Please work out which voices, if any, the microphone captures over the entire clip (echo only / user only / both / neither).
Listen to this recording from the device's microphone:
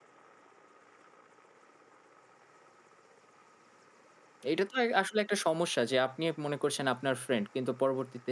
user only